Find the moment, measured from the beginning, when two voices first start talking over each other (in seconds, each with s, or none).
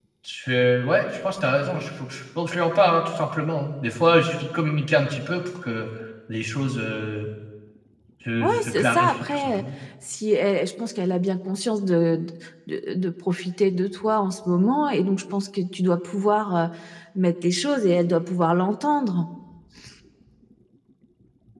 8.4 s